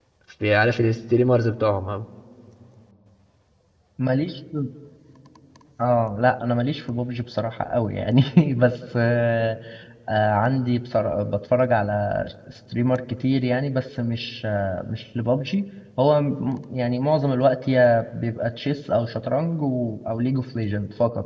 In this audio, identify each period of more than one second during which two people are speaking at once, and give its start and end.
none

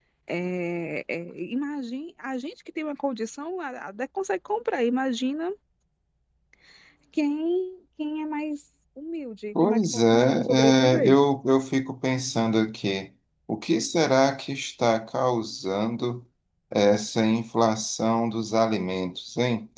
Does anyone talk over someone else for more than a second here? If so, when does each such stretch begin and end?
9.6-11.2

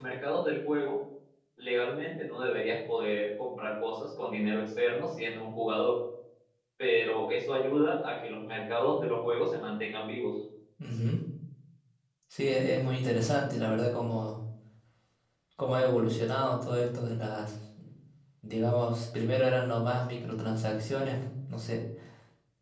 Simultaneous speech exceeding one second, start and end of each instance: none

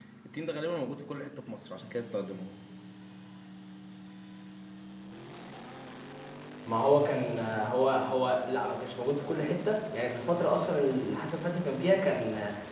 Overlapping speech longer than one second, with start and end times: none

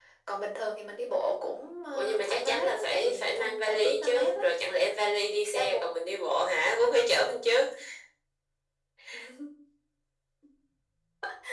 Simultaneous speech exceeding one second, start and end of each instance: 1.9-4.4

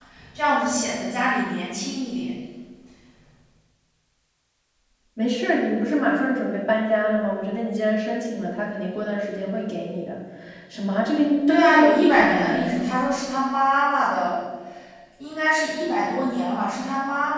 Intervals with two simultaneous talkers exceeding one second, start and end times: 11.5-12.9

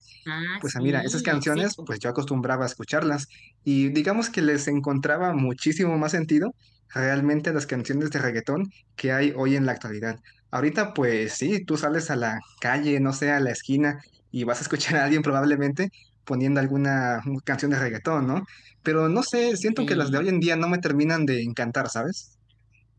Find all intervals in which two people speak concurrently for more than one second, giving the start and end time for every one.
0.6-1.9

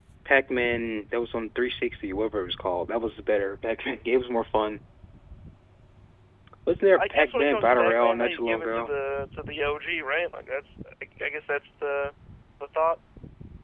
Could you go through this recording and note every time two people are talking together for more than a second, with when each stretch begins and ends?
7.0-8.9

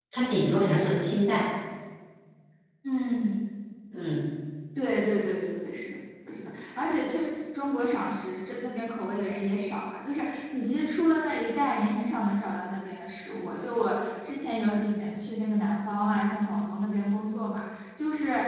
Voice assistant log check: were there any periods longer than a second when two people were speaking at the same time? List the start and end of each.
none

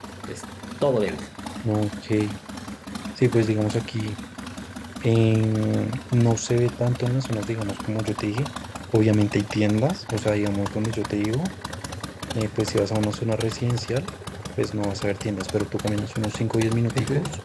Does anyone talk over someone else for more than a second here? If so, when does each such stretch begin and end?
none

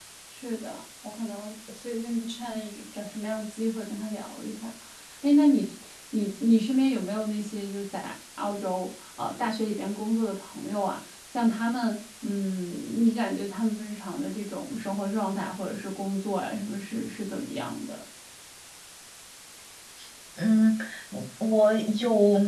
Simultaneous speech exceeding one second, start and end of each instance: none

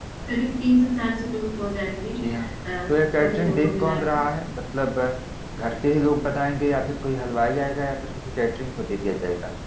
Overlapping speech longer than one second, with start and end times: 2.9-4.2

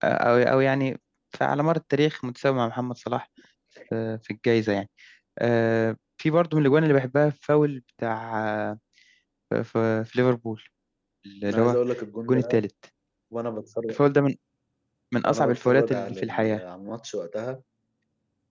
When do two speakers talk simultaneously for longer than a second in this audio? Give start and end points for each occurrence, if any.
15.3-16.6

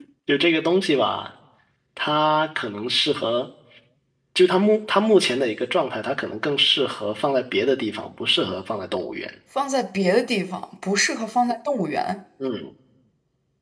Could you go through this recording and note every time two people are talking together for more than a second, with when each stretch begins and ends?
none

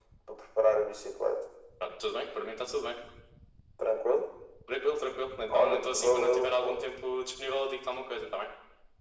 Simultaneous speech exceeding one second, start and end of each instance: 5.5-6.8

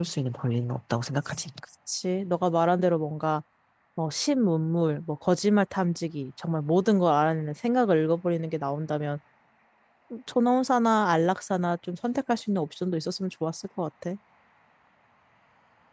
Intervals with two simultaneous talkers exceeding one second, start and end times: none

